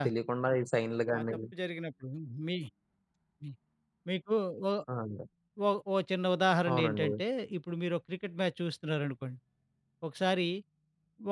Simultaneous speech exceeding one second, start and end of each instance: none

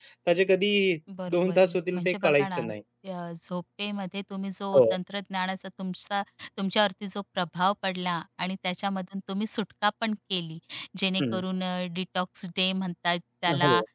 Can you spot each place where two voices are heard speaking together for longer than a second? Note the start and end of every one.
1.3-2.6

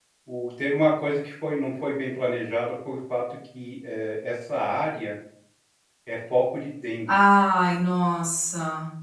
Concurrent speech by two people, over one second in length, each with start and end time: none

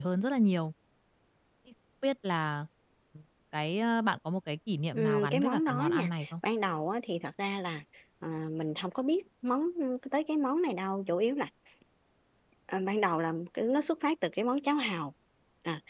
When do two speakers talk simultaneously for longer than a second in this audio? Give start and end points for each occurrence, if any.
4.9-6.3

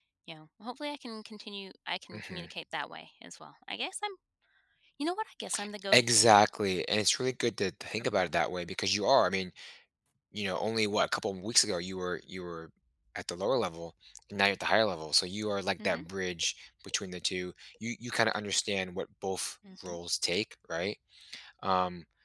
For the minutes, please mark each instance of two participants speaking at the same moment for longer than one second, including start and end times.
none

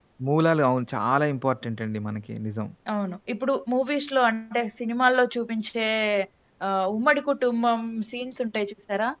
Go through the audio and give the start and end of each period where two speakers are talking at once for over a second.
none

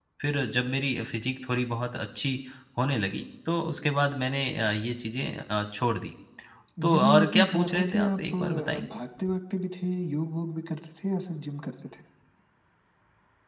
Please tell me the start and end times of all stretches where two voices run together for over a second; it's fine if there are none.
6.8-8.9

